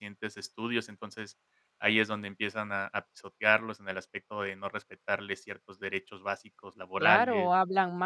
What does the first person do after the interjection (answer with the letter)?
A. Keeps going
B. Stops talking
B